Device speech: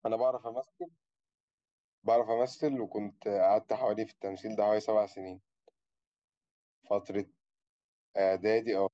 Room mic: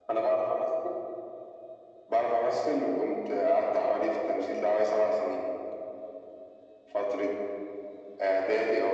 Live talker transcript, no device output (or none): none